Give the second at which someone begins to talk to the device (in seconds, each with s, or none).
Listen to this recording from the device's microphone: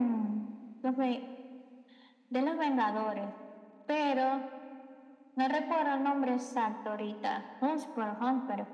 none